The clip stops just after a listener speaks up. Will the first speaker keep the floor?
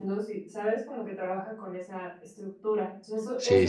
No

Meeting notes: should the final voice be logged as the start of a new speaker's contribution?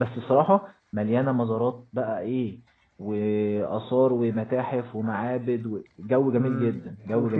Yes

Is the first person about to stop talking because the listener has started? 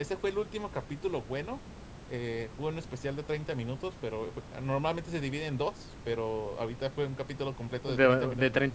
Yes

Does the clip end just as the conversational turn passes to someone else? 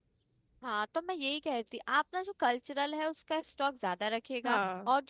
No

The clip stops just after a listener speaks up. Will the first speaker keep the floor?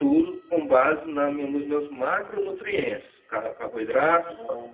Yes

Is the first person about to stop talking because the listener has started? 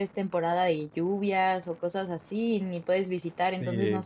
Yes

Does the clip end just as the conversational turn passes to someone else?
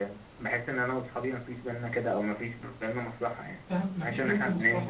Yes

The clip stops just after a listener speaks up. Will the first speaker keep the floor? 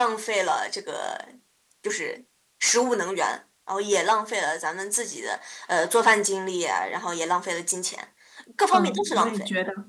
No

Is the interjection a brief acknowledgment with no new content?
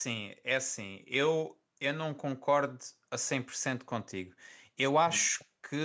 Yes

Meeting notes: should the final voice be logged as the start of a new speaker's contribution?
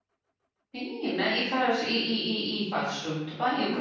Yes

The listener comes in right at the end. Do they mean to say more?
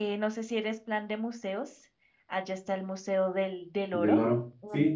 Yes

